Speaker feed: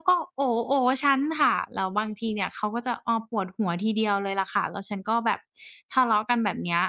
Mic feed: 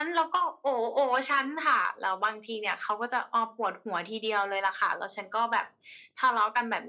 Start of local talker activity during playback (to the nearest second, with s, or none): none